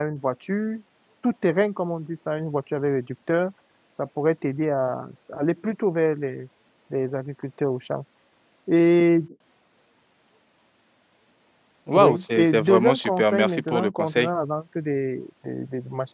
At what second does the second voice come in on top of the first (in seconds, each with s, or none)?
11.9 s